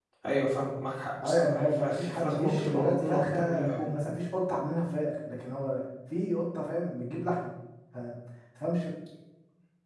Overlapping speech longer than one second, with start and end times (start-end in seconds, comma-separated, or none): 1.2-3.9